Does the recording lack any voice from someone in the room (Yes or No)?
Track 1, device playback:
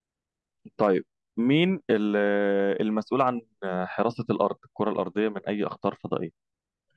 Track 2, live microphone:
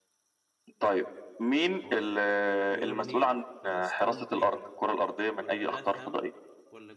No